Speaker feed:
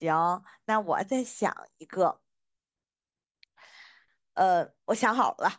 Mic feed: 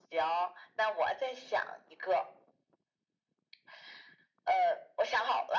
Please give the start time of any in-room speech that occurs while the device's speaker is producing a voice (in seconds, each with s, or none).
none